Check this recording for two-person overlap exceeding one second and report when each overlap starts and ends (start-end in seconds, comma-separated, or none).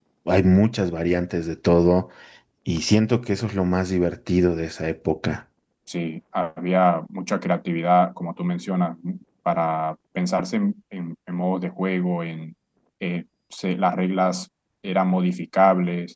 none